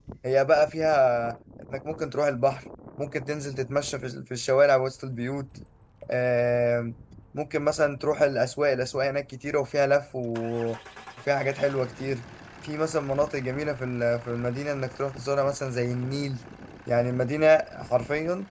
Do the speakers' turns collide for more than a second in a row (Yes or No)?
No